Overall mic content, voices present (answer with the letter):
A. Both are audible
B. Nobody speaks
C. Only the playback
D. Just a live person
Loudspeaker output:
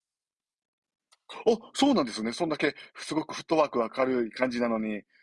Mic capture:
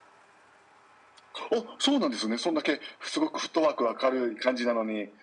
C